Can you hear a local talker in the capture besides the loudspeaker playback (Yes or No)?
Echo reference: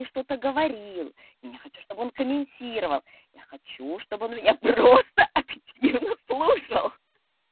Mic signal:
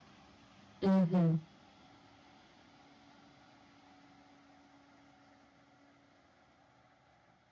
Yes